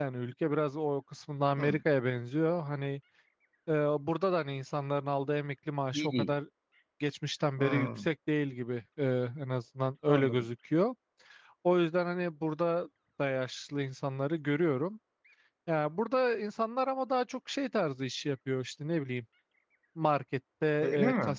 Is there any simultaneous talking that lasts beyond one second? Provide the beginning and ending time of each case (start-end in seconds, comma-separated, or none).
none